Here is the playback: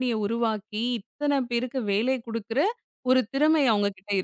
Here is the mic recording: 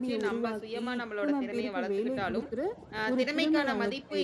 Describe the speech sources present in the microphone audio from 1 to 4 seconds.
both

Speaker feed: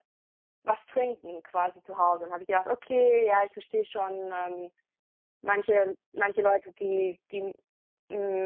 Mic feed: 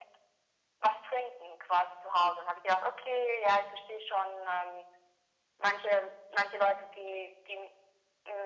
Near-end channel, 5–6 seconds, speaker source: echo only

